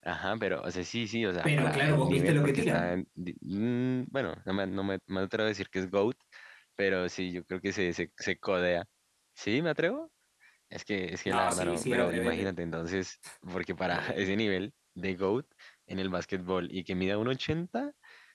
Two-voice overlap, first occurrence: 1 s

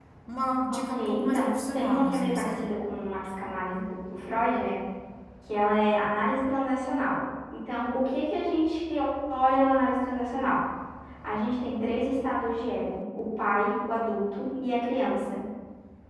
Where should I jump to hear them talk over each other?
1 s

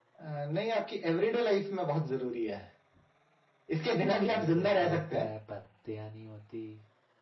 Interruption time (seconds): 4 s

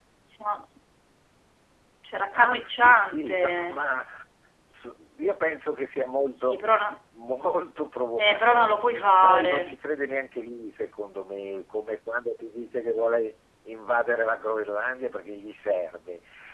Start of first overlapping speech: 2 s

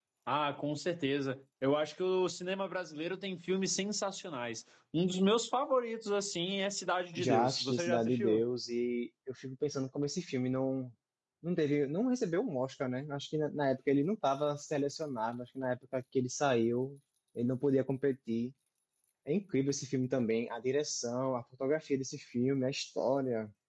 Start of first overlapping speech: 7 s

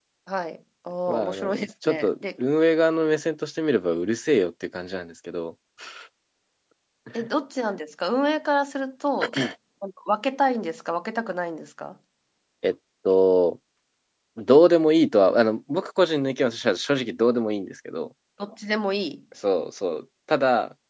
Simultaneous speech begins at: 1 s

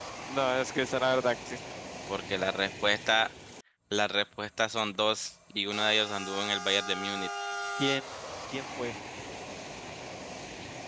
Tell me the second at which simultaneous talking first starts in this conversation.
none

